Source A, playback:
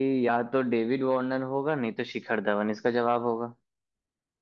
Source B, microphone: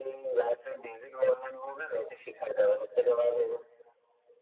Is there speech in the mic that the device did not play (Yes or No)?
No